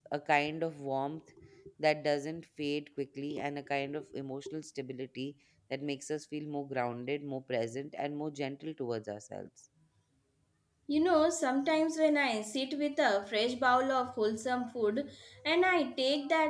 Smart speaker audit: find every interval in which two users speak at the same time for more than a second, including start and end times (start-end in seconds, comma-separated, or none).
none